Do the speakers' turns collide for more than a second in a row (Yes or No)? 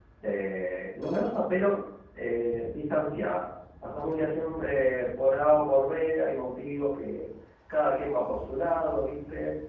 No